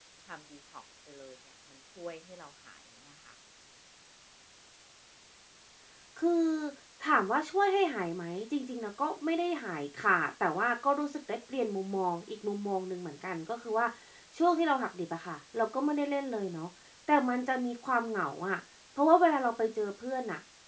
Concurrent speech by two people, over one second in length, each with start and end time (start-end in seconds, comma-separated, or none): none